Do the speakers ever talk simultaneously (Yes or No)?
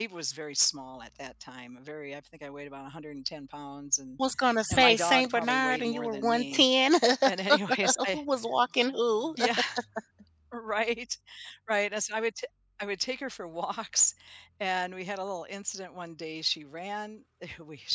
Yes